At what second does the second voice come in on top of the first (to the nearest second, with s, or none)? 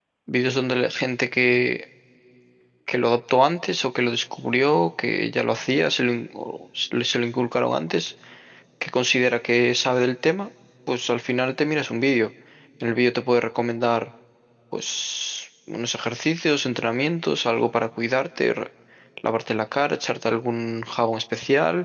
none